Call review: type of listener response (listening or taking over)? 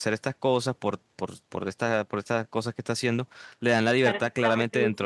taking over